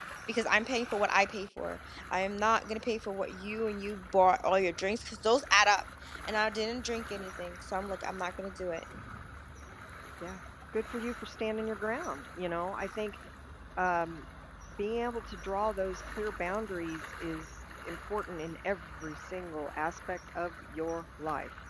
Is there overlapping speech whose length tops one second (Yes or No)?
No